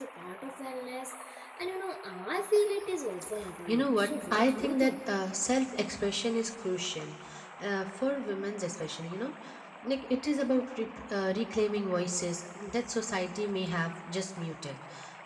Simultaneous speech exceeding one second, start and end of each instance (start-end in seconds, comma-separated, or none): 3.7-5.0